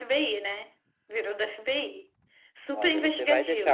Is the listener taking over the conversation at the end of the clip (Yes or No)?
Yes